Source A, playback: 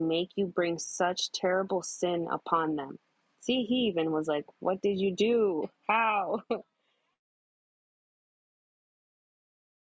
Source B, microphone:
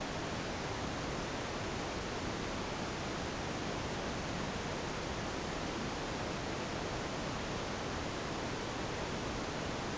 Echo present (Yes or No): No